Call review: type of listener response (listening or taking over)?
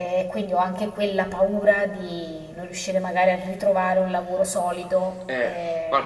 taking over